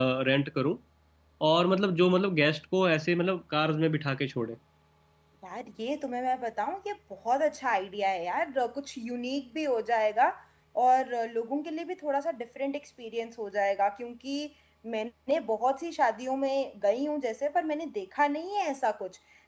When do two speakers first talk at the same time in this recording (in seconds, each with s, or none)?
none